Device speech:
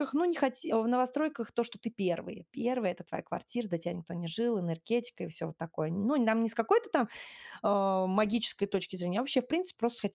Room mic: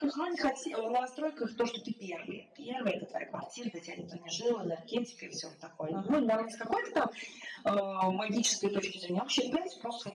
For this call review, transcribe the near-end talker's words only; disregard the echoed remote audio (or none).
Ага.